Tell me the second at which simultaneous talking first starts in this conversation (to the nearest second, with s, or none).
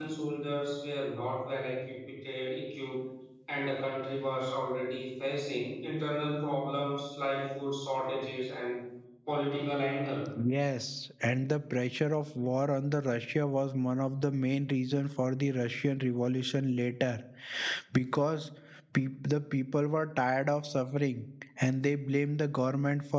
none